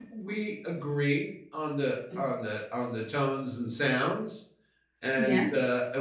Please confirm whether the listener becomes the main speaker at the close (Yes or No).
No